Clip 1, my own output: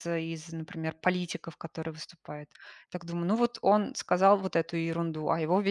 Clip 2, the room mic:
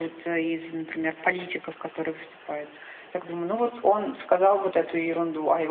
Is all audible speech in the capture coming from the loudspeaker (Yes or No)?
Yes